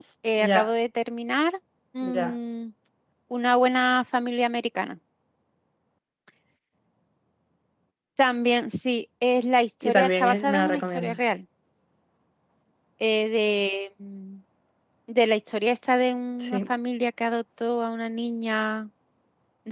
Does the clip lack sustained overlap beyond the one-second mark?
No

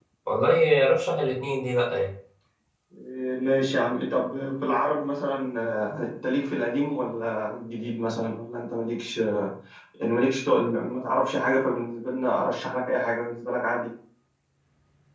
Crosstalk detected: No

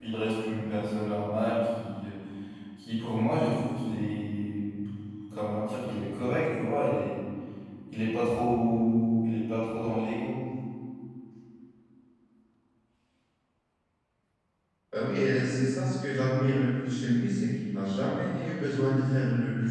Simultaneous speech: No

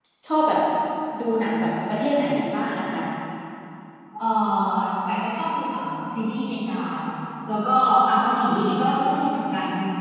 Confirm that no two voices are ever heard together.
Yes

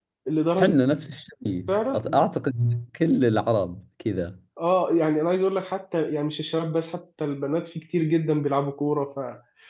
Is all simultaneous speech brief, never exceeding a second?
Yes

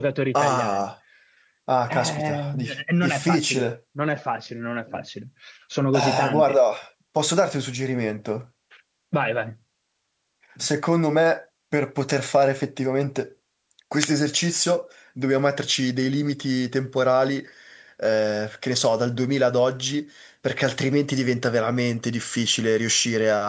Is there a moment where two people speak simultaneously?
Yes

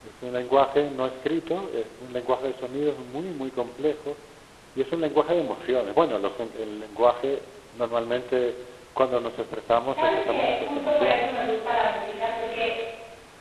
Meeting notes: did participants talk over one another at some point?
Yes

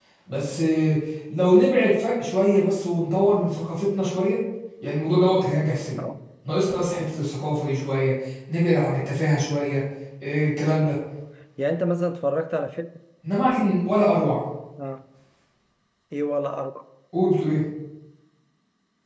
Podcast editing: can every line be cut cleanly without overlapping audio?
Yes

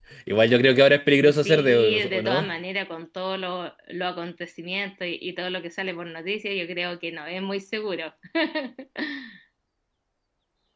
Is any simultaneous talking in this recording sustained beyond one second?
Yes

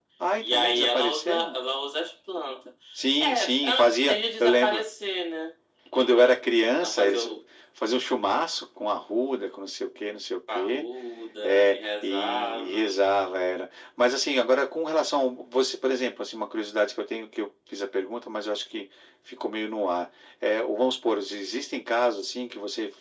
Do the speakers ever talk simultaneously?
Yes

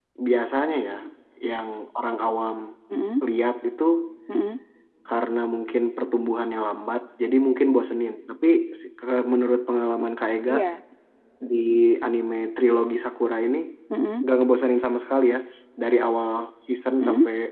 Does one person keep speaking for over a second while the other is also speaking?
No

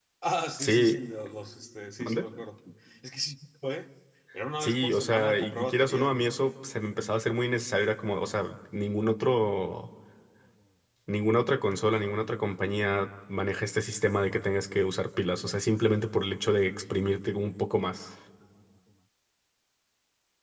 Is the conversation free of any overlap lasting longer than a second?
No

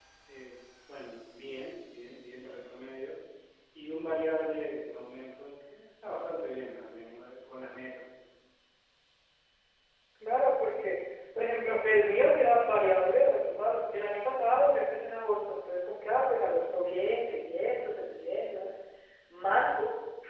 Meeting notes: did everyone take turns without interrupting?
Yes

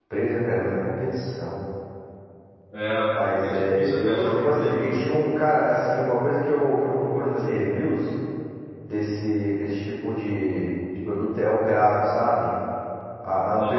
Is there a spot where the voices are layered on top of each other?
Yes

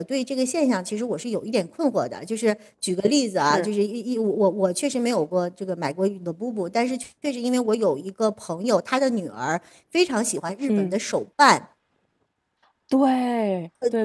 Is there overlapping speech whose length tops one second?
No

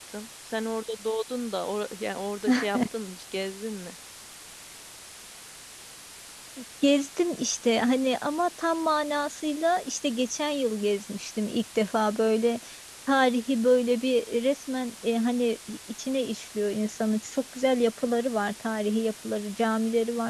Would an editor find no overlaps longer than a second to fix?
Yes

